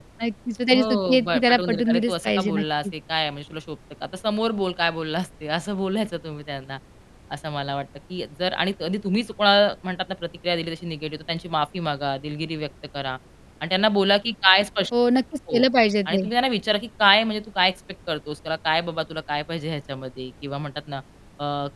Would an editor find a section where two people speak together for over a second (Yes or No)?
Yes